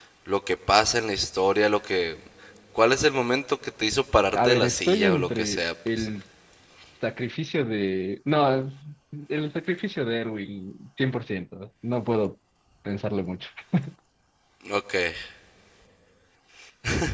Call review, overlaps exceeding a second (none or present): present